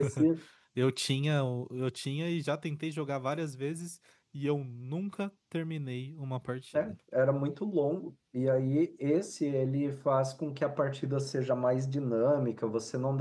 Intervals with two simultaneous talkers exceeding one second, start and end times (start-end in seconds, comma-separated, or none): none